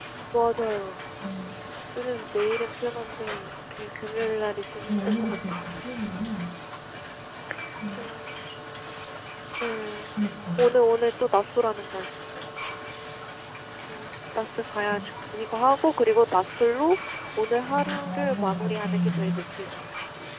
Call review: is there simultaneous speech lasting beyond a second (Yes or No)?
Yes